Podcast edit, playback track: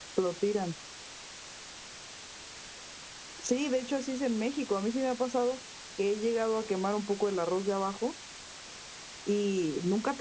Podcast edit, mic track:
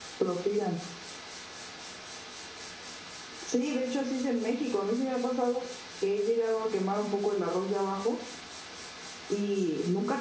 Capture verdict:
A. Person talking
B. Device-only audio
B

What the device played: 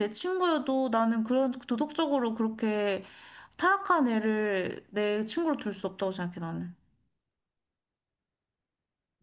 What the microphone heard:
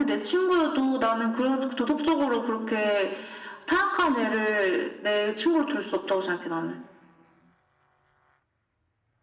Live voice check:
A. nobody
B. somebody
A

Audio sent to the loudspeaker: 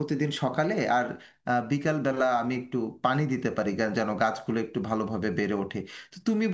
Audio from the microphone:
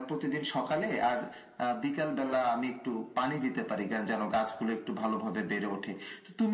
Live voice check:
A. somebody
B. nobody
B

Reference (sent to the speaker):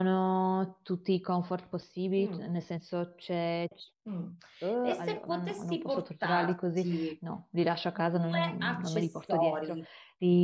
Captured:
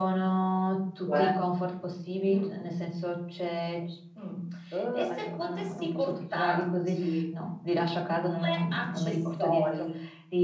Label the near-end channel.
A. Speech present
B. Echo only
A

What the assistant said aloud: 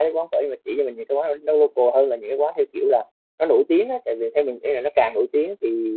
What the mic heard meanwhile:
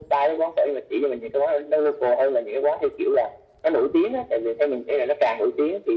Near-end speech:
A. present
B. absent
B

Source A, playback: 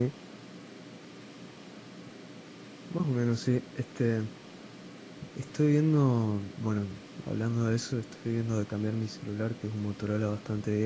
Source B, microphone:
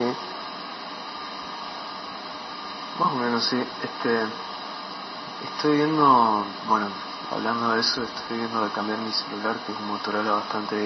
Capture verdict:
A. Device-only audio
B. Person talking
A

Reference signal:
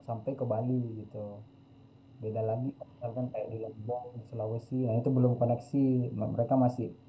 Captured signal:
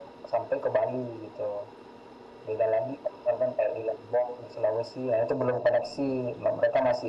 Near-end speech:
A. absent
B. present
A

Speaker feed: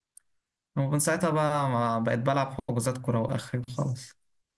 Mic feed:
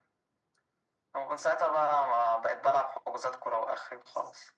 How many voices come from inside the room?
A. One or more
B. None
B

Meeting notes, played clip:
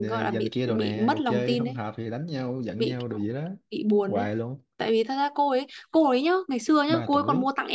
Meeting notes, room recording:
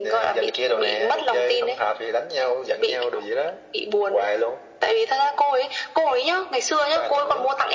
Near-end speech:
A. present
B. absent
B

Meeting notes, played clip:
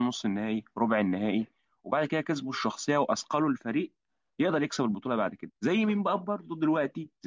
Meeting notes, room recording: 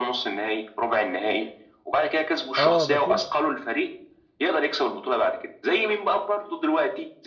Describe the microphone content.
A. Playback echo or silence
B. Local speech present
B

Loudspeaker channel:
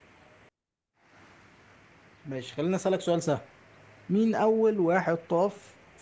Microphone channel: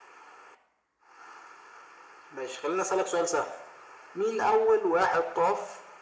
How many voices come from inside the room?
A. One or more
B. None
B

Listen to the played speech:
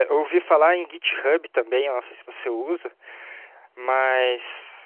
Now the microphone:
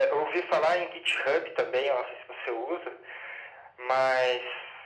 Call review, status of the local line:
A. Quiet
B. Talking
A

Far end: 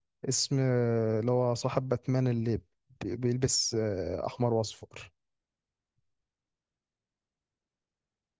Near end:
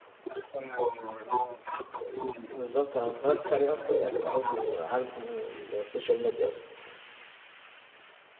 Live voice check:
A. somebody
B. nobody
A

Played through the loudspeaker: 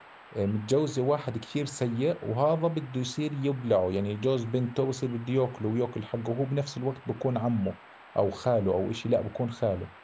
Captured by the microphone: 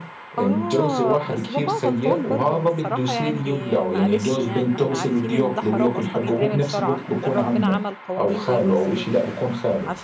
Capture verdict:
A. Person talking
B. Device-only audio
A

